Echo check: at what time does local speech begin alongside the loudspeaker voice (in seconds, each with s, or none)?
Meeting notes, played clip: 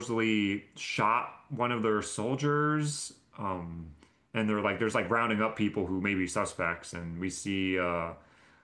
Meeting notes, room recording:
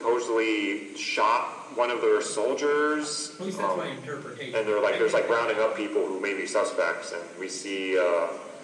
3.4 s